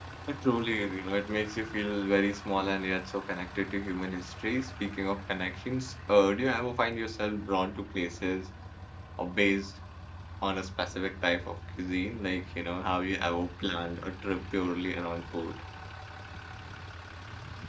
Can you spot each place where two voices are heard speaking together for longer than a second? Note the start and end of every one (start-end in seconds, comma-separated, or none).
none